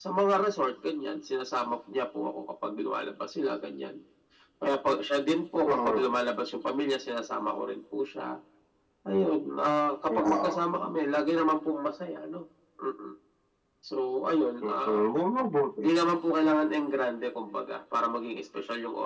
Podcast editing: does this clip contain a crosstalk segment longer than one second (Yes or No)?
No